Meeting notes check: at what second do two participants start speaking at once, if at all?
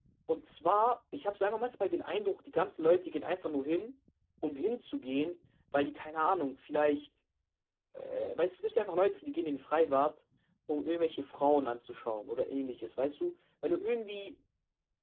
none

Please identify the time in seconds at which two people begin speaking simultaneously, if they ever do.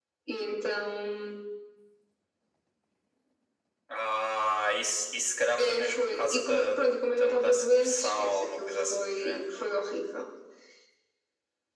6 s

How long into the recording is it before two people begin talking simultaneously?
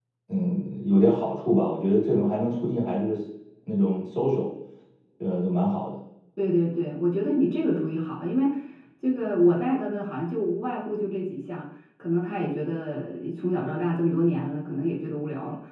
none

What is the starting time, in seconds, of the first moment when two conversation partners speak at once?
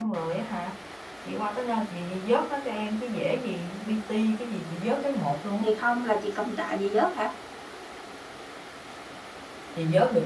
none

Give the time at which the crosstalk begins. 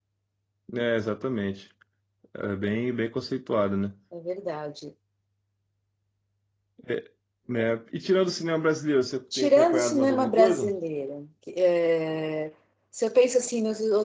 9 s

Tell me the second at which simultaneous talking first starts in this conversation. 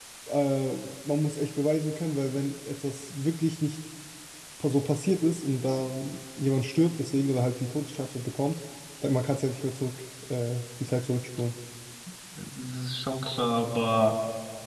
none

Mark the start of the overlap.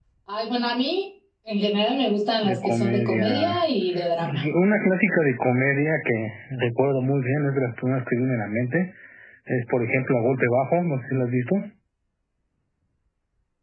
2 s

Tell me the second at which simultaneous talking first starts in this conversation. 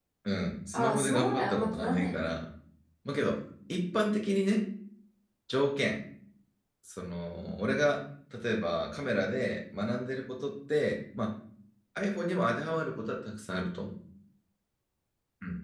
1 s

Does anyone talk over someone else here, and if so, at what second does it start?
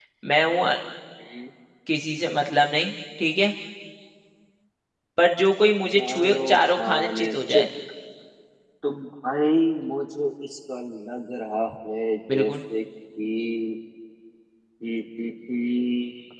6 s

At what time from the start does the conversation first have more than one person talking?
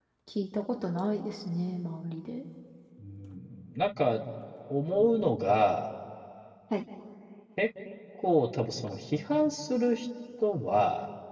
none

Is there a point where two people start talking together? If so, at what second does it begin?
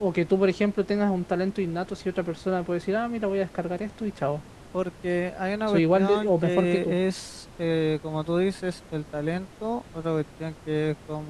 6 s

